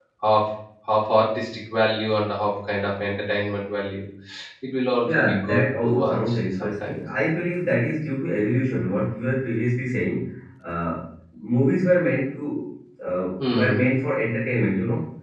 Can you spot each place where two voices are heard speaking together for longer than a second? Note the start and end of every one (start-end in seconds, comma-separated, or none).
5.0-6.9